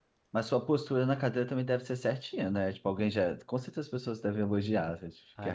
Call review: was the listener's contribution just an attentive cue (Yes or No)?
No